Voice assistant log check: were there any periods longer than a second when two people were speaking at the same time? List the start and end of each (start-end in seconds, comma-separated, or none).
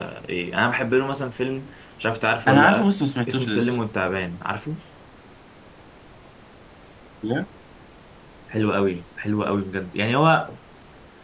none